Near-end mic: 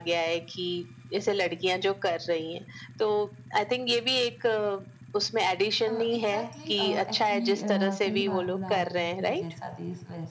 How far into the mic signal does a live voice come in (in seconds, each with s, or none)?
5.9 s